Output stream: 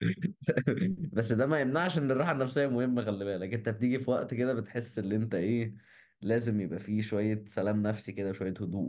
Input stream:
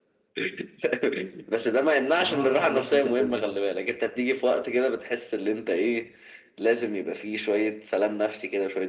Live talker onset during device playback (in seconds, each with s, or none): 2.2 s